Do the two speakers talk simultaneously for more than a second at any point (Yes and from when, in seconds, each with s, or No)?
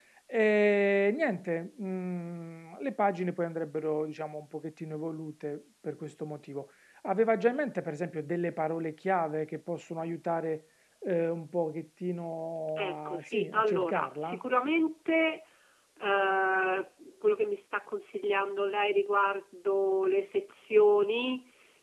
Yes, from 12.8 s